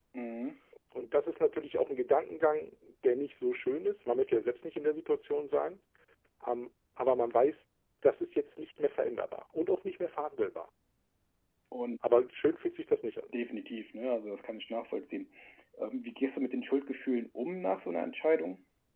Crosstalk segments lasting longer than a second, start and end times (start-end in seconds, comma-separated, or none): none